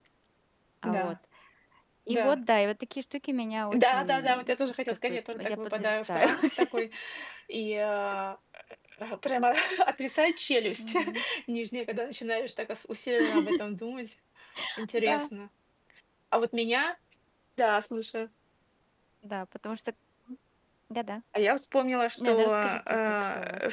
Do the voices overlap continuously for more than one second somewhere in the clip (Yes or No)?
Yes